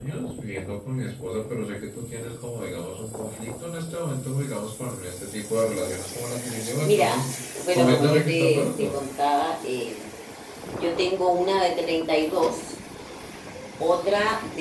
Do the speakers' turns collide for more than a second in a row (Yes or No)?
Yes